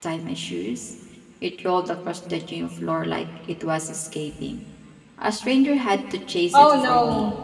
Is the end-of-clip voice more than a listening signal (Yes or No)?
Yes